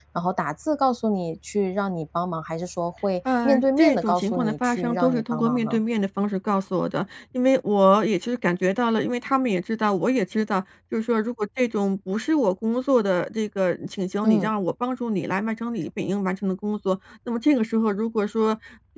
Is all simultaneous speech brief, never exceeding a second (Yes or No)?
No